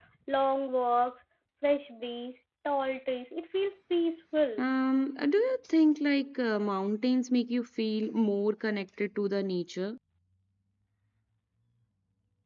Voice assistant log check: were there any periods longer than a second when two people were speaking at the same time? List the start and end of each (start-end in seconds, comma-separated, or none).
none